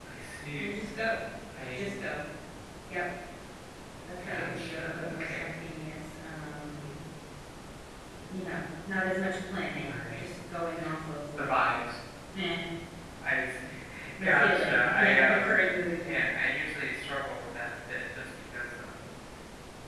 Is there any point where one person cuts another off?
Yes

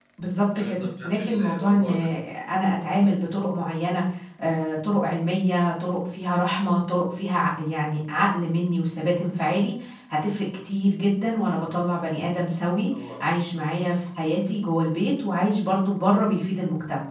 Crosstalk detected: Yes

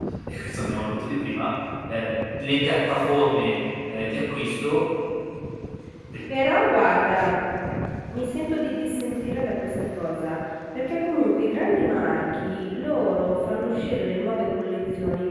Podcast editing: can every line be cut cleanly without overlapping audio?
Yes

